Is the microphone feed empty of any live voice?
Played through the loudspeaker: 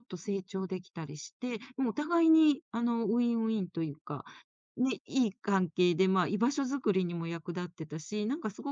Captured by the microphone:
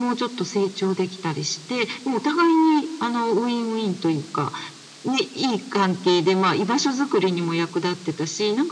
Yes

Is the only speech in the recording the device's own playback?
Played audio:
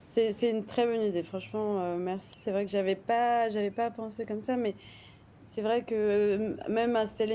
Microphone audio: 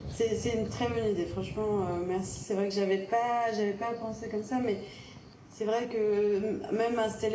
Yes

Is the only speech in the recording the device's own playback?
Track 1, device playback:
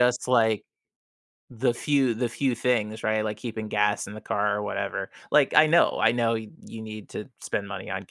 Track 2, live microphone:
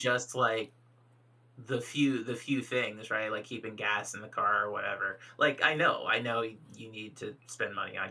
Yes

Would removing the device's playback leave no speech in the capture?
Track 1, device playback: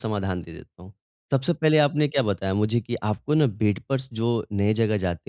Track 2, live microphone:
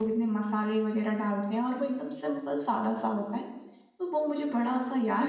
No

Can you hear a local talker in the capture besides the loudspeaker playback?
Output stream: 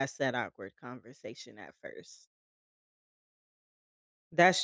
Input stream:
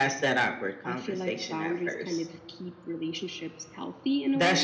Yes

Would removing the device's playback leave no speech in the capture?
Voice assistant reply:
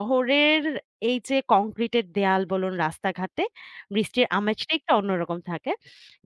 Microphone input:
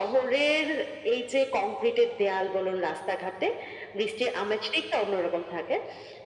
Yes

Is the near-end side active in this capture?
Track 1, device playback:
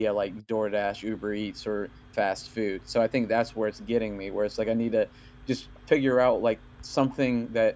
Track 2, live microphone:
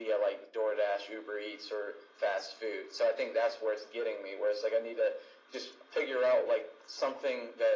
No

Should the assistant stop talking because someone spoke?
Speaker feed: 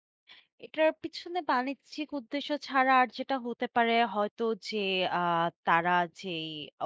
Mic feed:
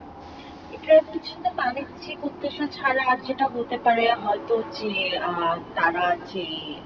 No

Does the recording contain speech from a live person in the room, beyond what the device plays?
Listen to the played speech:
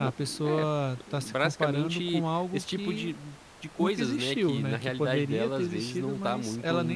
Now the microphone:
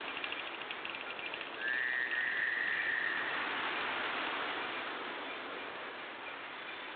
No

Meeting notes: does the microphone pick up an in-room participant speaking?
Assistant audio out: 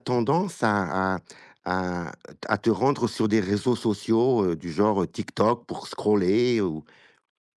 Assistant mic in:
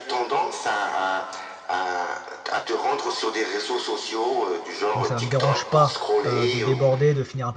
Yes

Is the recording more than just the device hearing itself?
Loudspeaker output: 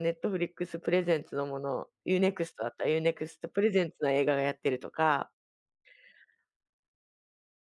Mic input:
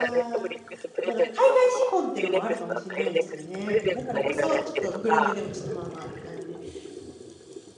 Yes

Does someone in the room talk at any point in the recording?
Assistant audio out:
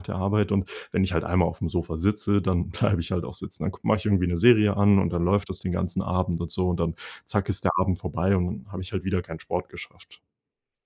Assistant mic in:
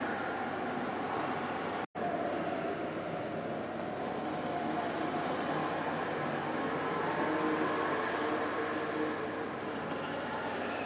No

